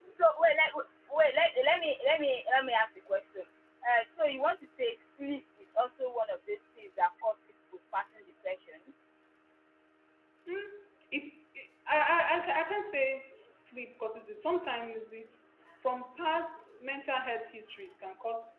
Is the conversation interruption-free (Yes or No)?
Yes